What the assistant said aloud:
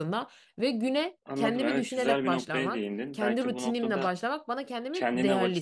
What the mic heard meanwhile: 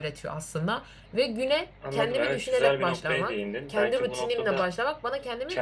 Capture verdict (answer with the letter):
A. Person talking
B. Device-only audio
B